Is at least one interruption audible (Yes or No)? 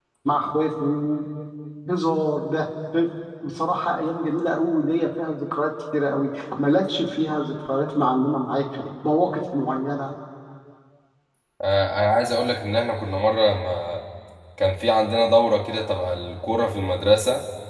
No